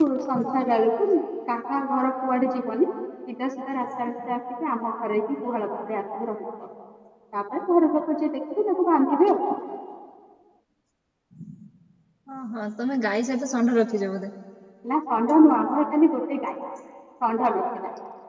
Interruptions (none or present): none